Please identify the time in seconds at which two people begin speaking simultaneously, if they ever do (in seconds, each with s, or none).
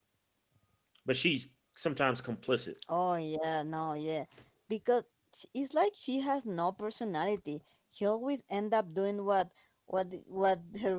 none